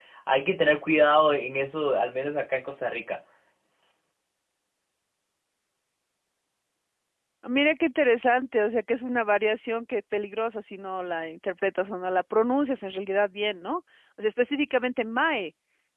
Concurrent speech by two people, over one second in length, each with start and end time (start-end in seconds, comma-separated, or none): none